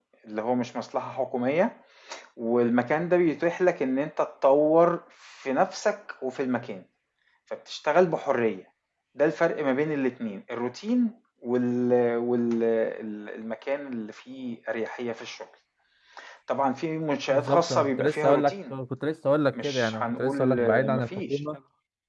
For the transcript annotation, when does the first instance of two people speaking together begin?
17.3 s

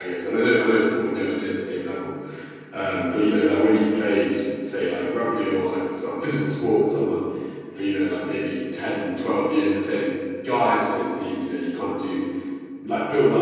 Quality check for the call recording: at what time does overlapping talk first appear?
none

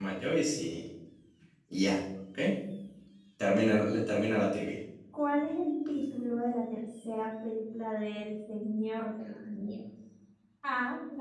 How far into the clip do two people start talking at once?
none

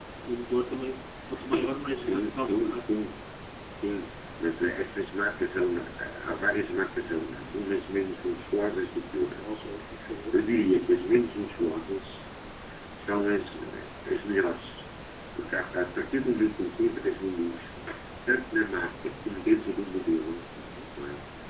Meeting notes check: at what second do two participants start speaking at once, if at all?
1.4 s

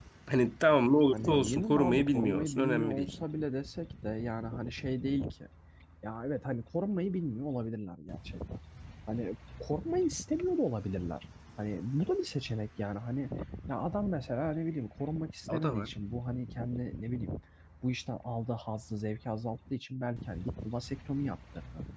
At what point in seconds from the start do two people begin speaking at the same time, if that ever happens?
1.1 s

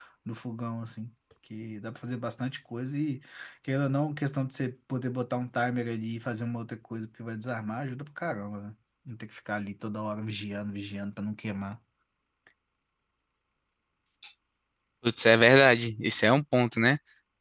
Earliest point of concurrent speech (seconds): none

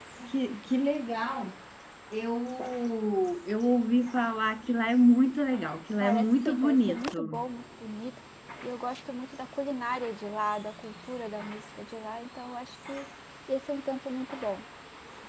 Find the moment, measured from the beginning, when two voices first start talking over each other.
6.0 s

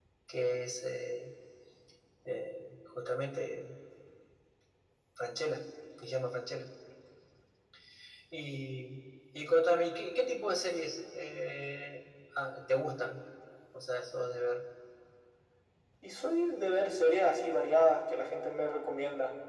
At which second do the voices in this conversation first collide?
none

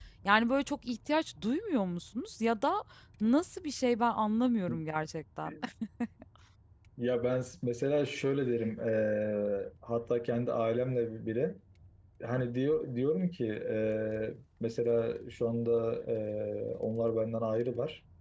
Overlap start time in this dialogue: none

